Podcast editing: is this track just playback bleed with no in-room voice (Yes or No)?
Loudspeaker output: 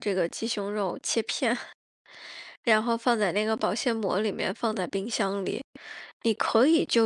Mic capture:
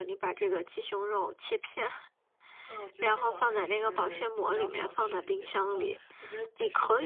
No